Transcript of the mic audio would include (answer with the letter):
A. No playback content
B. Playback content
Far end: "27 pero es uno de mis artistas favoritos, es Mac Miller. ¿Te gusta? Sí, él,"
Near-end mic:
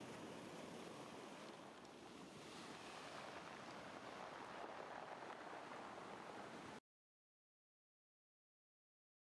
A